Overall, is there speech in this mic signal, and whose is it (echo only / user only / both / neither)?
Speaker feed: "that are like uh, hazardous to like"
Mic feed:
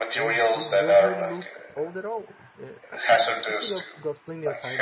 both